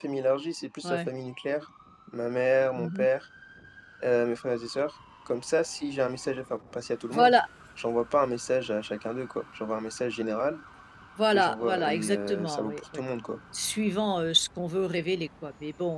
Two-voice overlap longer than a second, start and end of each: 11.3-13.0

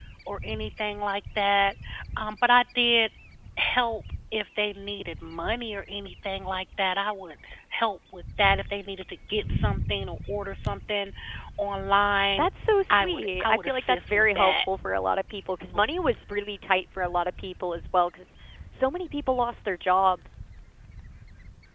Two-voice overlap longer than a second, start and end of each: 12.9-14.5

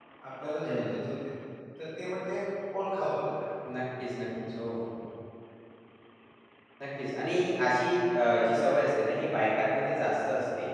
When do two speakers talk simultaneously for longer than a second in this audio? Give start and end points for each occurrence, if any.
none

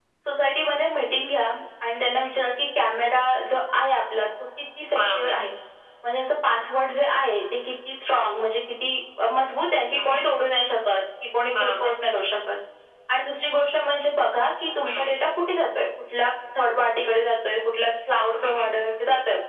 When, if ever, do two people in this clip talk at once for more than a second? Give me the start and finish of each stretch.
none

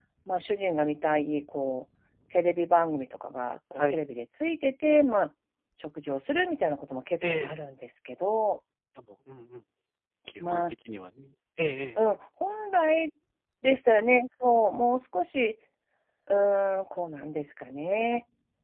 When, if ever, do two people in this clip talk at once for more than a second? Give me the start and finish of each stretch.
none

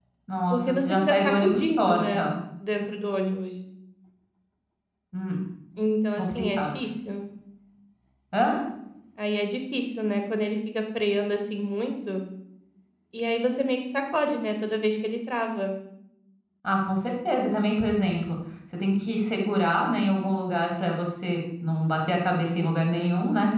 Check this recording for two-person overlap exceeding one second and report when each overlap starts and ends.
0.5-2.3

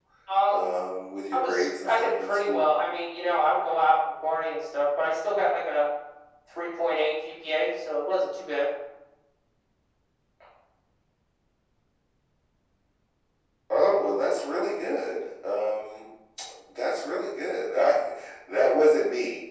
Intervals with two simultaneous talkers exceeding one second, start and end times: 1.3-2.7

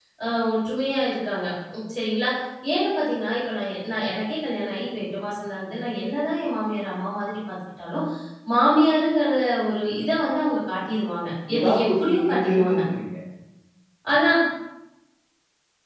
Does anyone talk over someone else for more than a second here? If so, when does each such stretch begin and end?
11.6-12.8

